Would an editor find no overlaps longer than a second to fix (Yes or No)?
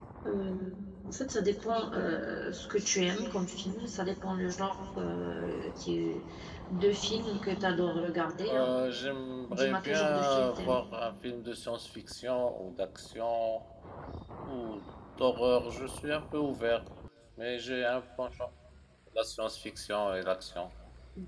No